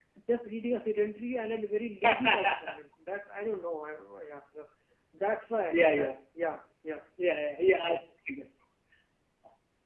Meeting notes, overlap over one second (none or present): none